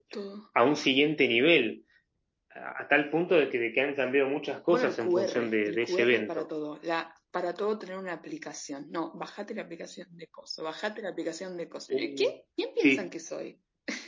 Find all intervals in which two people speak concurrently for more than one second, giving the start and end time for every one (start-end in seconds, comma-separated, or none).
4.7-6.5